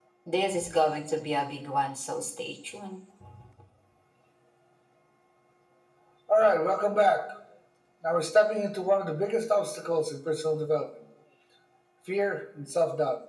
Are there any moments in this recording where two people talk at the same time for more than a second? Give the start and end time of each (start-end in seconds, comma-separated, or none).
none